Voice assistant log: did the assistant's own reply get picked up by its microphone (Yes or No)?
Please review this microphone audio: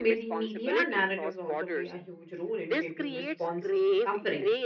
Yes